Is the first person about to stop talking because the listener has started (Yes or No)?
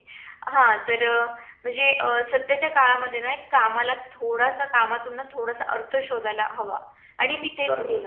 Yes